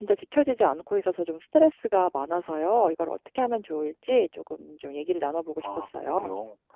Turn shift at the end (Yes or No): Yes